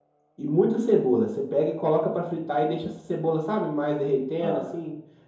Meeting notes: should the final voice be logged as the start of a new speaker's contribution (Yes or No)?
No